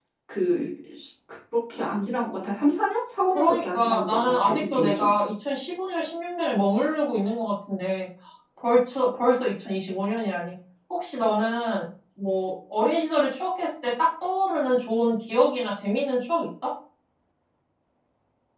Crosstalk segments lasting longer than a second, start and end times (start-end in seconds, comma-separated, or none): 3.3-5.1